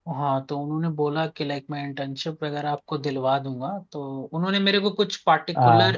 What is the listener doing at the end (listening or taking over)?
listening